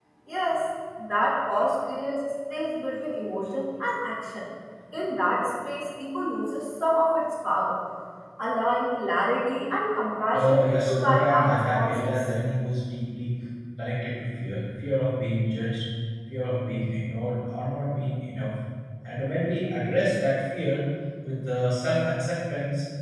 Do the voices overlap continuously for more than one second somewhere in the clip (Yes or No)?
Yes